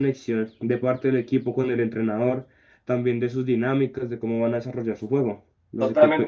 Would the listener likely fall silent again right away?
No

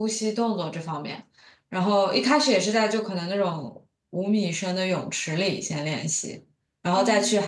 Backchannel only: Yes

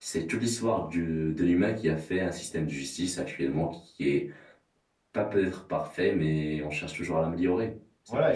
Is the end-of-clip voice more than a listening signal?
Yes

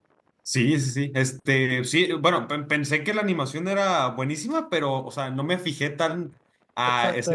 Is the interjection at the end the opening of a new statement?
Yes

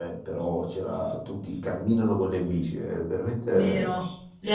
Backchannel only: No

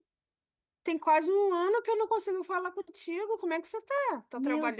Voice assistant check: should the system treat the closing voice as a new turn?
Yes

